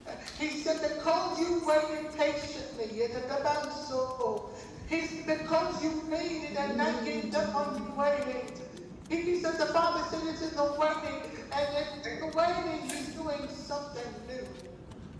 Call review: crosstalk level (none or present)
present